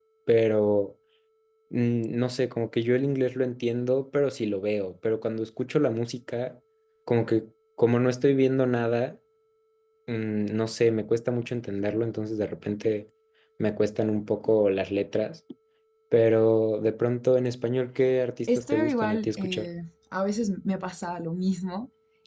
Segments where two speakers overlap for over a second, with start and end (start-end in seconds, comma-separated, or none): 18.5-19.7